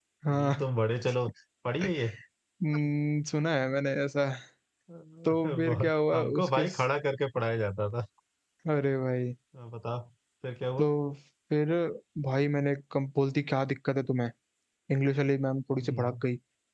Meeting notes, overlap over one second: present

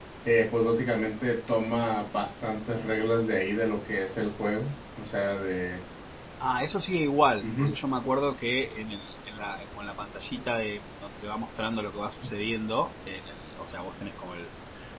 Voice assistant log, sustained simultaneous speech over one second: none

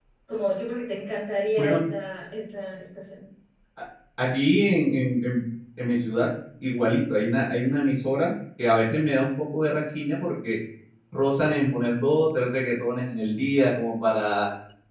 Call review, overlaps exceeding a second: none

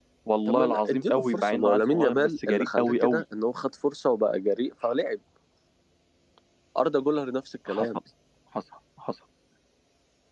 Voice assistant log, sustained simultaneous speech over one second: present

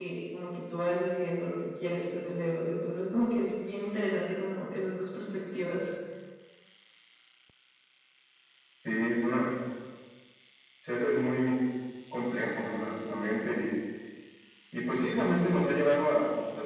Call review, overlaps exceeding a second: none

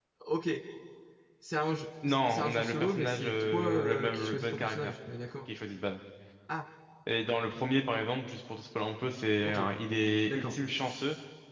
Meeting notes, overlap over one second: present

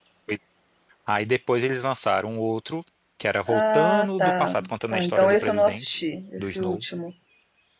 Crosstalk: present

